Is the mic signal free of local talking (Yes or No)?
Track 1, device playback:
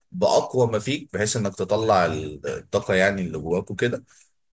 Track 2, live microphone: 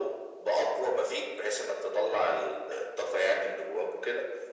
Yes